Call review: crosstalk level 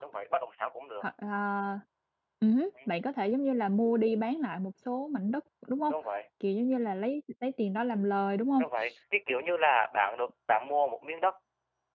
none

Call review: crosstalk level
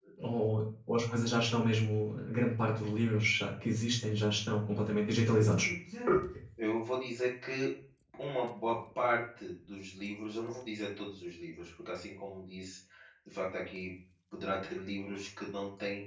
none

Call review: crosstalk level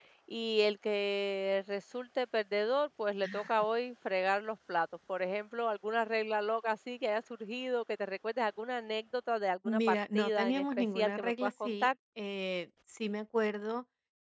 present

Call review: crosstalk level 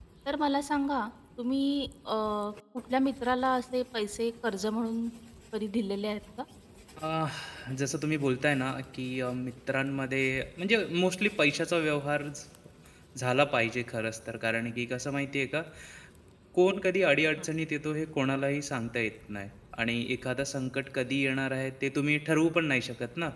none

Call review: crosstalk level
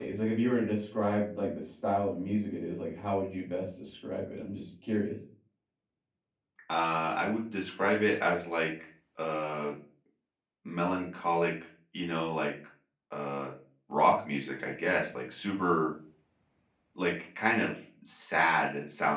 none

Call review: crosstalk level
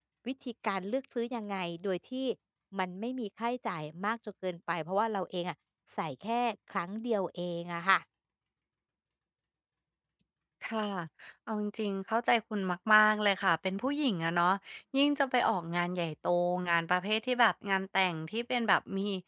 none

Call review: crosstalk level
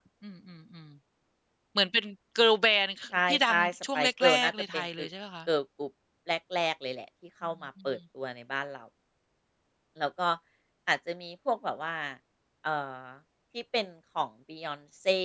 present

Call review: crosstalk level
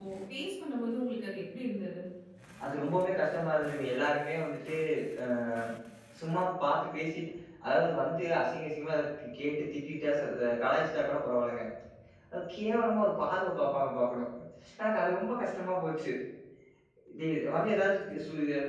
none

